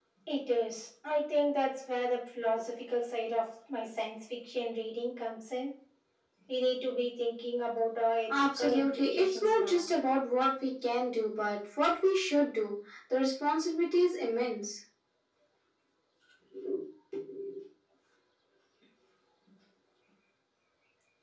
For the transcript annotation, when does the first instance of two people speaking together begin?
8.3 s

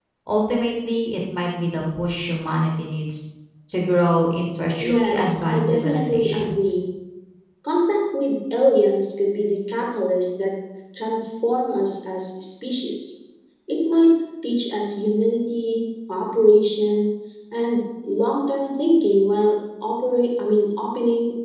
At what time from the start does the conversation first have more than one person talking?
4.8 s

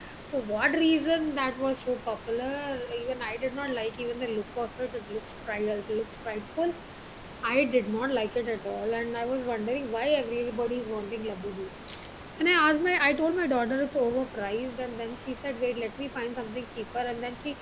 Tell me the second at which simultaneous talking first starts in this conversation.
none

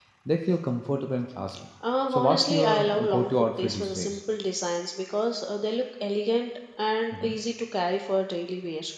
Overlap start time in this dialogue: 2.1 s

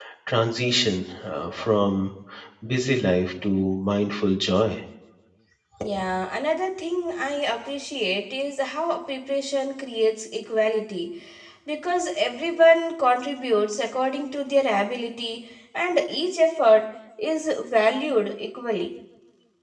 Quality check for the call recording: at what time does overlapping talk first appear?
none

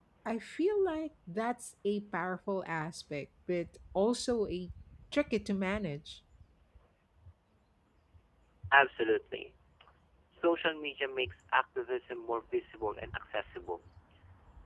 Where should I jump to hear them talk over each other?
none

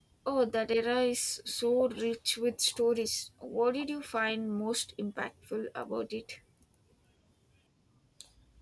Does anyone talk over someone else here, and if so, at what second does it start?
none

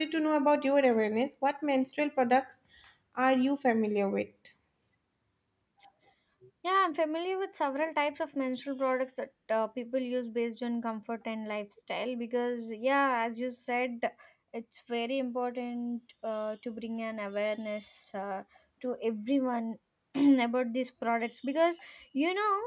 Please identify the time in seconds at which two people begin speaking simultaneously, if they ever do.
none

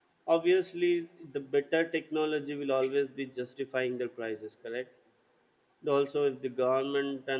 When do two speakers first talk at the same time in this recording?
none

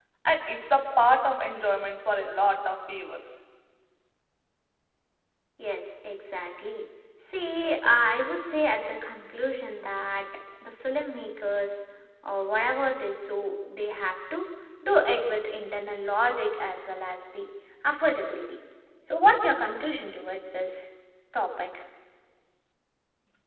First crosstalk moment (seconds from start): none

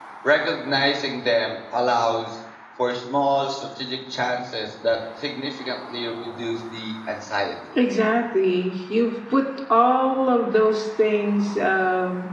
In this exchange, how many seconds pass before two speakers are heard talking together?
none

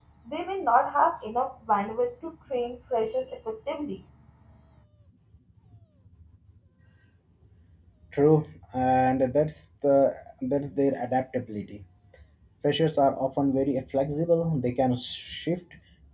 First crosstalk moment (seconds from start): none

